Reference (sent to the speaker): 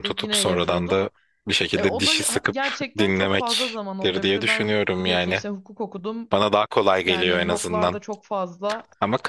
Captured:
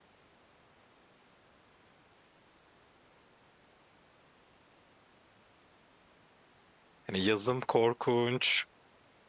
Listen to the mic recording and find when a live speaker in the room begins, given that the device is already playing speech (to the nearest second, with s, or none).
7 s